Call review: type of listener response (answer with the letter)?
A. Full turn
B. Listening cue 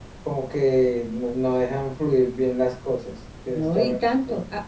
A